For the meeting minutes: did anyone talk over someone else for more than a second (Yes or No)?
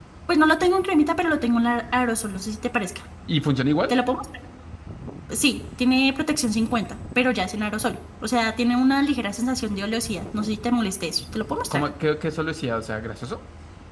No